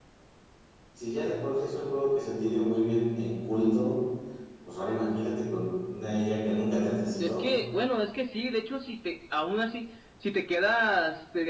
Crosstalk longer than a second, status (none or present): none